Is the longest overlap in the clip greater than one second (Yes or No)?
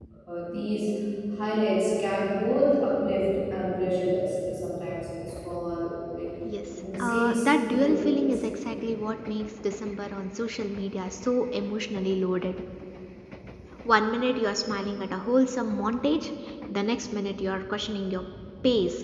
Yes